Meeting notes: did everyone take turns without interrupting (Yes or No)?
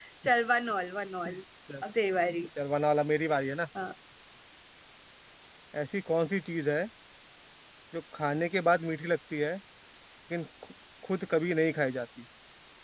Yes